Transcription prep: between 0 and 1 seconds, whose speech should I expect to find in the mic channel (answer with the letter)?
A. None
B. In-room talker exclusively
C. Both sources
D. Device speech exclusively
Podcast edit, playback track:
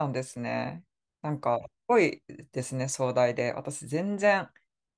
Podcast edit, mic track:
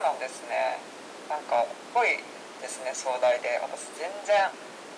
D